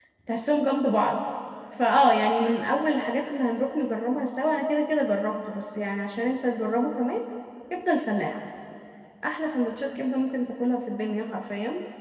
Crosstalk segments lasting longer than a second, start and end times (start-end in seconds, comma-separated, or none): none